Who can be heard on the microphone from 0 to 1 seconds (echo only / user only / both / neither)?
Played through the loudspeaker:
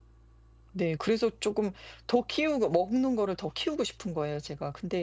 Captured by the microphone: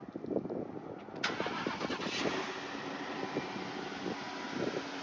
neither